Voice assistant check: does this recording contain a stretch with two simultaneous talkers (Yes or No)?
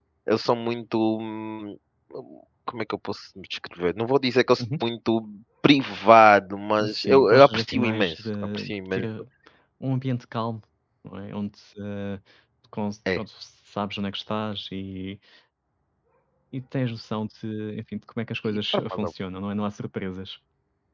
Yes